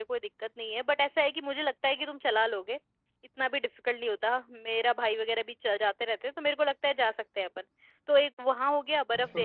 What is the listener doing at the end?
taking over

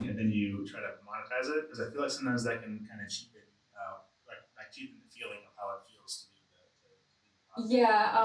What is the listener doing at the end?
taking over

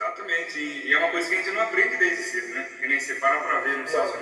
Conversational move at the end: listening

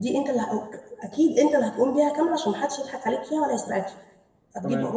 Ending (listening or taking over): listening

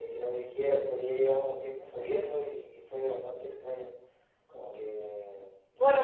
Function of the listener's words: taking over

